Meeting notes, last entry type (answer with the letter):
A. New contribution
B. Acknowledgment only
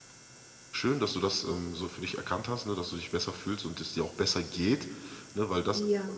B